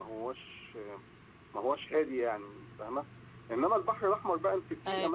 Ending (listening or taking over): listening